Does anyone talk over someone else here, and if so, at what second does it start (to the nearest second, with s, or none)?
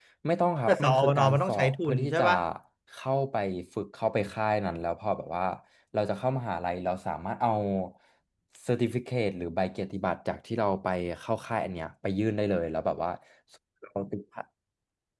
1 s